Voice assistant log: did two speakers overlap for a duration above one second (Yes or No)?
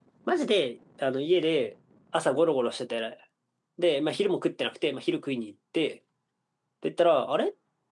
No